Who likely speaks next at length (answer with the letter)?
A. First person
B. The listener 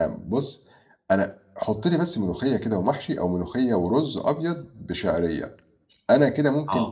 A